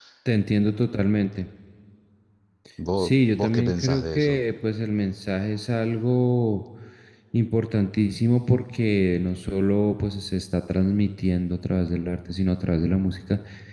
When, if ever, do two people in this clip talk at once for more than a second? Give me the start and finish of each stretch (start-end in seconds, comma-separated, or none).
3.0-4.4